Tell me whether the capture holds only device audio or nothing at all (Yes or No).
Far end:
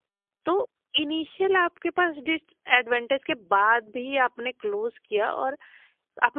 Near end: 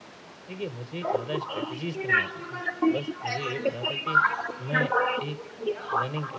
No